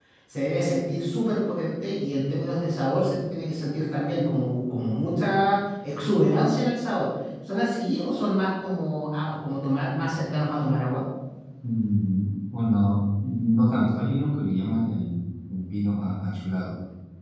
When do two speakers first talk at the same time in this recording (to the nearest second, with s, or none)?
none